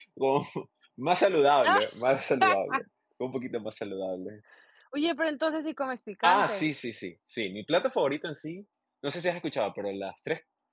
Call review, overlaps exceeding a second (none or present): none